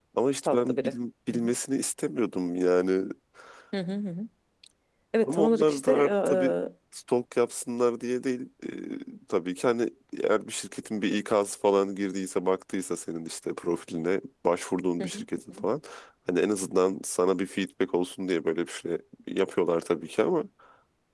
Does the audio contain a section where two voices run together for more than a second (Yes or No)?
Yes